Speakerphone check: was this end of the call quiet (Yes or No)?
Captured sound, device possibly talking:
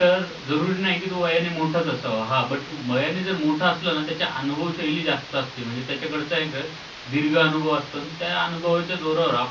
No